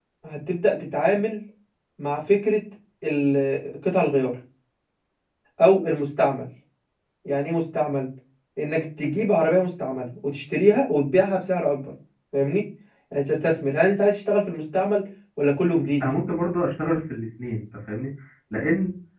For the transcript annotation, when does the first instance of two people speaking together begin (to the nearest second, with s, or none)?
none